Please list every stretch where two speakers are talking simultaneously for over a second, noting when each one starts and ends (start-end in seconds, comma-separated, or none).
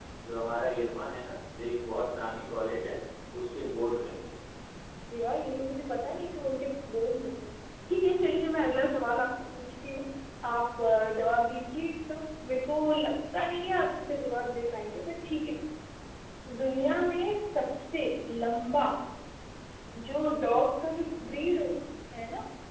none